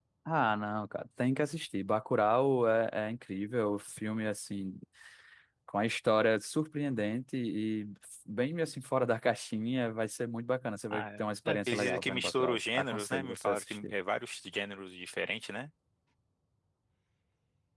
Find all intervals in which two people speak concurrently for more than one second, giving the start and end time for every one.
10.9-13.9

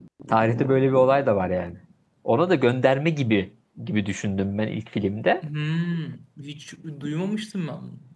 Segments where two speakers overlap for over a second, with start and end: none

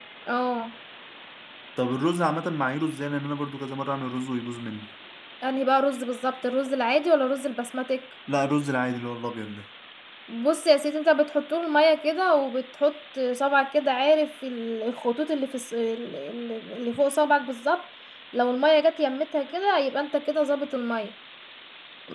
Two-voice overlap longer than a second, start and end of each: none

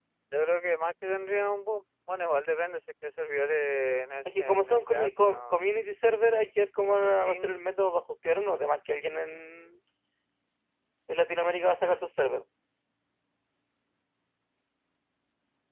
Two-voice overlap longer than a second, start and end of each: 4.2-5.6

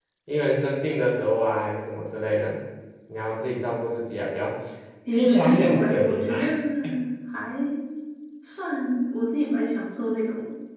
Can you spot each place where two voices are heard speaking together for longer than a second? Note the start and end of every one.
5.1-6.4

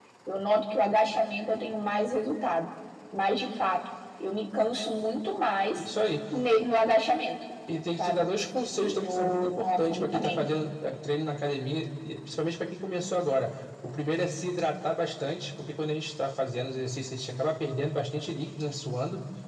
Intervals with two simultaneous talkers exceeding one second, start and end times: 8.8-10.4

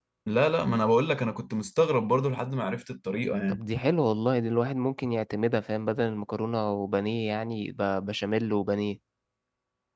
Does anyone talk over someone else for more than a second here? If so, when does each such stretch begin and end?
none

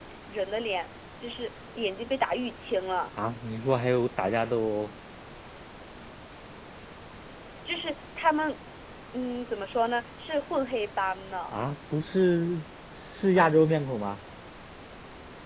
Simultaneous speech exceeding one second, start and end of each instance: none

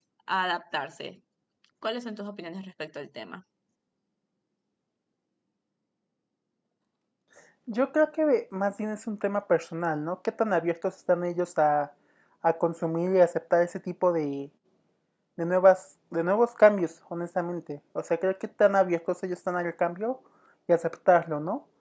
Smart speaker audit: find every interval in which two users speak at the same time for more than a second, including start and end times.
none

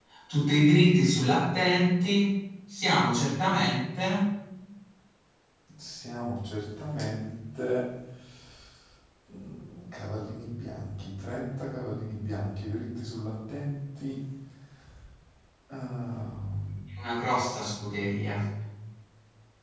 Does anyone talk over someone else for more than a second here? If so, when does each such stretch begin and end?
none

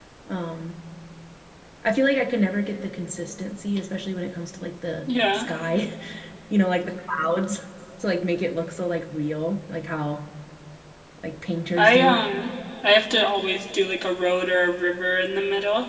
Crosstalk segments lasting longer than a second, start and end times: none

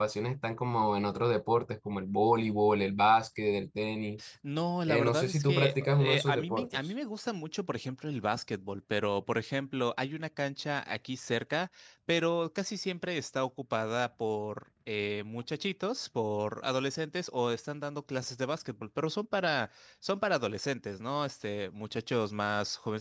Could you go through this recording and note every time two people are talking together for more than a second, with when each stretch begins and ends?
4.9-6.9

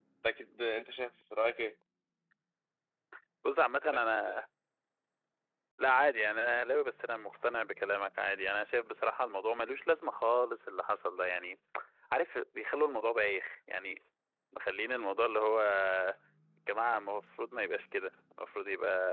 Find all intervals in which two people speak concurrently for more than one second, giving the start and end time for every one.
none

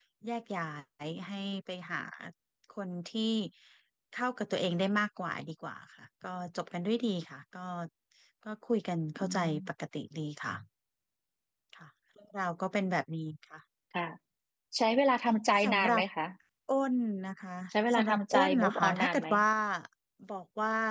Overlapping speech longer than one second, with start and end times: 17.9-19.3

